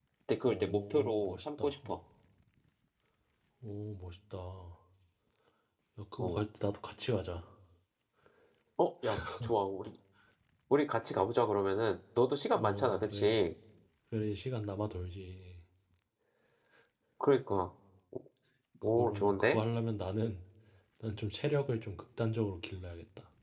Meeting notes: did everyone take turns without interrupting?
No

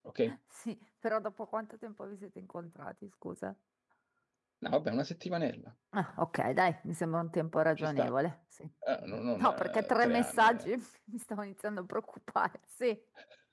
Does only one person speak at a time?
No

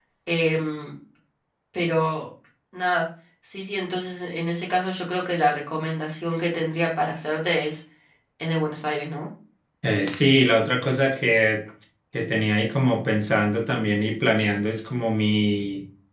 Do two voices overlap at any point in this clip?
No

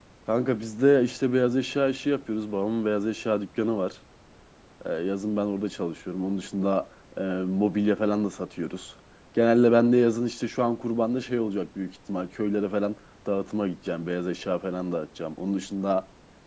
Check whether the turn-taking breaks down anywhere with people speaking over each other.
No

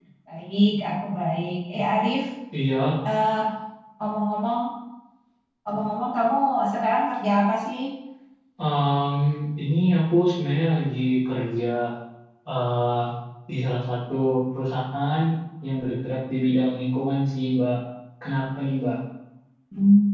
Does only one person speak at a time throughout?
Yes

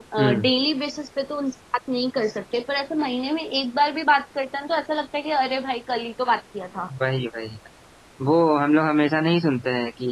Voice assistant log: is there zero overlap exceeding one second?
Yes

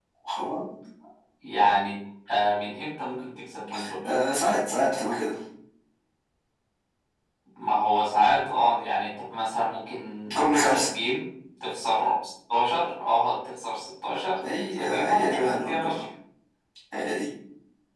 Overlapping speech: Yes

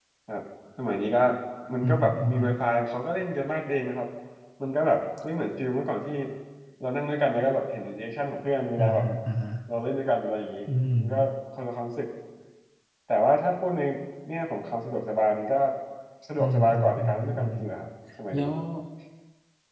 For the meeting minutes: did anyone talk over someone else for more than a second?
Yes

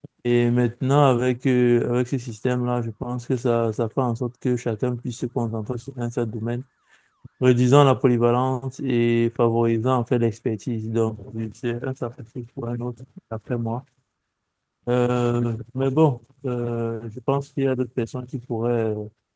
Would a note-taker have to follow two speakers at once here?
No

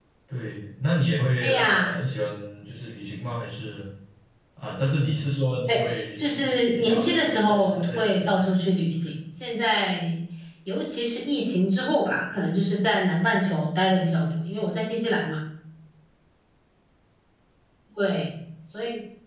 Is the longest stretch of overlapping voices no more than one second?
No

